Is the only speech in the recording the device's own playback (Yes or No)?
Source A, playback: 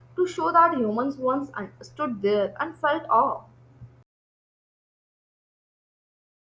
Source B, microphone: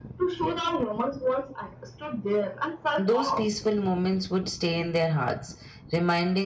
No